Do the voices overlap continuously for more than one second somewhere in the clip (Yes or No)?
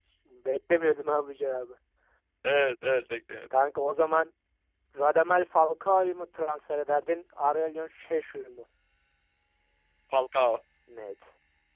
No